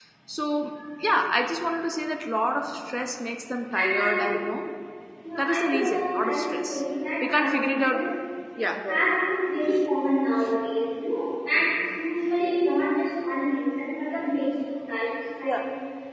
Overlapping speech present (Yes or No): Yes